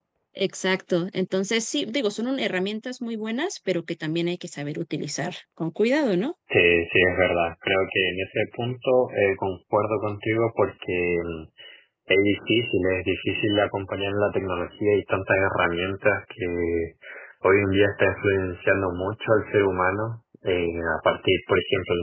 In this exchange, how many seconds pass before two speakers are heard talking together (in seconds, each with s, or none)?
none